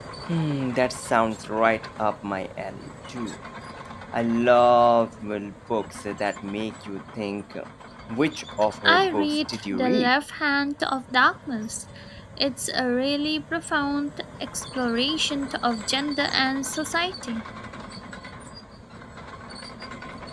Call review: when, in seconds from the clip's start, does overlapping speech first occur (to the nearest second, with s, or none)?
9 s